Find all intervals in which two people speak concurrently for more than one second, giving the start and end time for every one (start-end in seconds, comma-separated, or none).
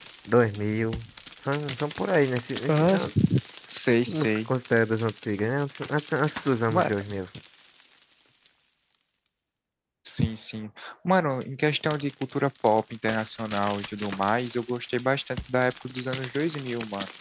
none